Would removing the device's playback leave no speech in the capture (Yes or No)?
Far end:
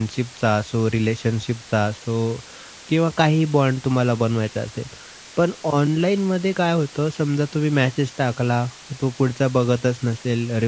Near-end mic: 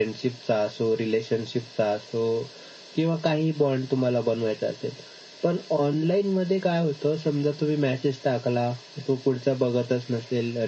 Yes